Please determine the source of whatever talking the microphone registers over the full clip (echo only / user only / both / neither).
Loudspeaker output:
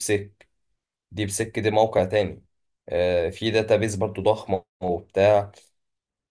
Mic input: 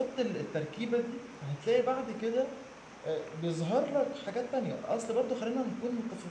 user only